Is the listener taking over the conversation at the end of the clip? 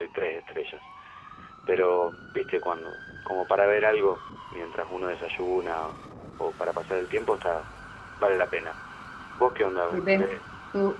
Yes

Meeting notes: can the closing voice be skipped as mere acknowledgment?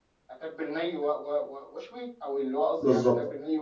No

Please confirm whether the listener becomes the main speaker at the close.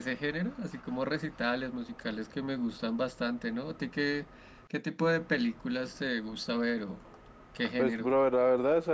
Yes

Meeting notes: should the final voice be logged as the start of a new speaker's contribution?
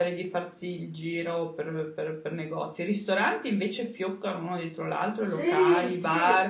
Yes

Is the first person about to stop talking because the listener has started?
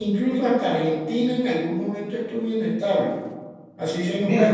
Yes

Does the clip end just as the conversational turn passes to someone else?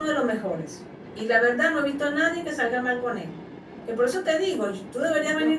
No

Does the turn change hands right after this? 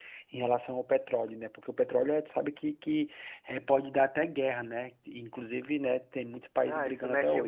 Yes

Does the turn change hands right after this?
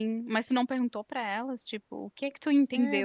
Yes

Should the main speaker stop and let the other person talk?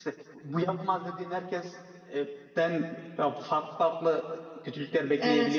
Yes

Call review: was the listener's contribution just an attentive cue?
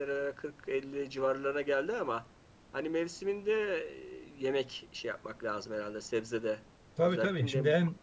No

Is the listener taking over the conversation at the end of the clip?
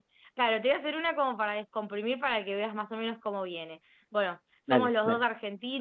No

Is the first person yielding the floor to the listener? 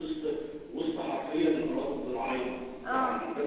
No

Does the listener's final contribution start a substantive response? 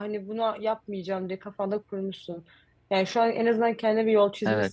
No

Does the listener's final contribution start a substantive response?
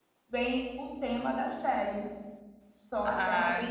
Yes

